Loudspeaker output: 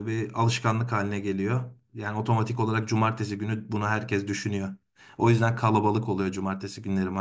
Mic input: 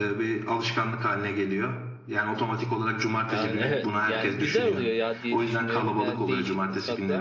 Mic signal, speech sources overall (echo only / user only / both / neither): both